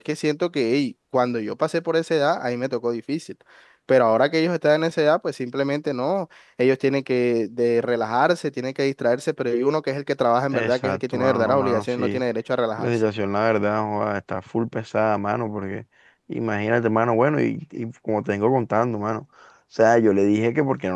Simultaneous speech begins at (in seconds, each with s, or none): 10.5 s